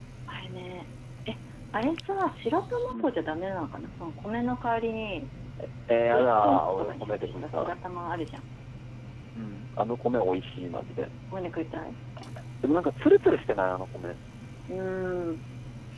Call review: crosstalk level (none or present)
present